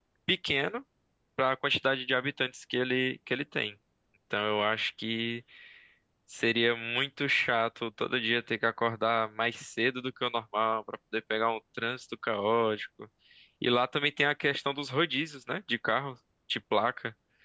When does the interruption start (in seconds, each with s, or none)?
none